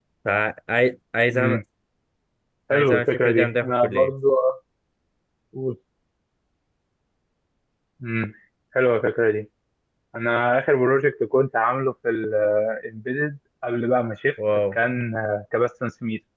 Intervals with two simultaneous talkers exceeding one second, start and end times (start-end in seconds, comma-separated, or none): 2.7-4.1